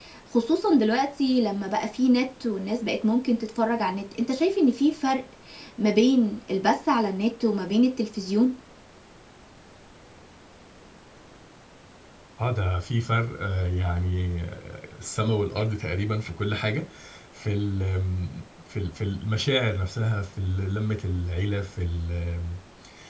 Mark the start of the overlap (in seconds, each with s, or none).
none